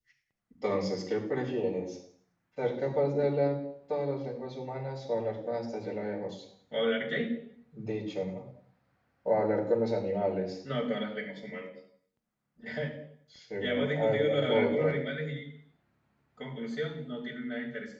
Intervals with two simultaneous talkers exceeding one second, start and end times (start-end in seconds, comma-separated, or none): 13.6-14.9